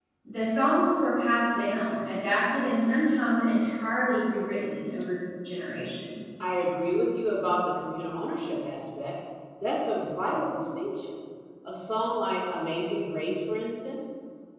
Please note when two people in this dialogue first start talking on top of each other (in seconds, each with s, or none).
none